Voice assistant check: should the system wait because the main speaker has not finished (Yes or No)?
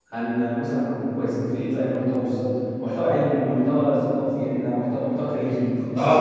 No